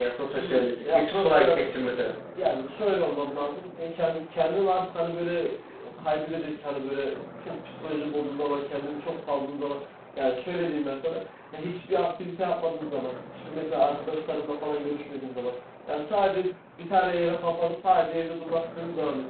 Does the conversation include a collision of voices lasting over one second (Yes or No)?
Yes